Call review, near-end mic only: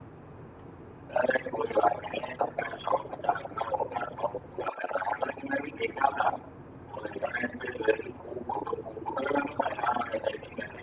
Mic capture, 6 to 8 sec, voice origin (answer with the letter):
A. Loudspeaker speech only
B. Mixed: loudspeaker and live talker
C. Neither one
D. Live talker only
A